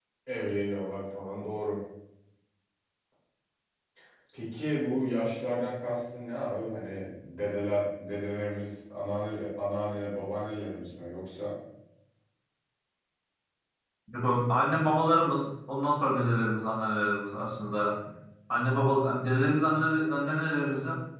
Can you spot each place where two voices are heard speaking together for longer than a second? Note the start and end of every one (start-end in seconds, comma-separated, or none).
none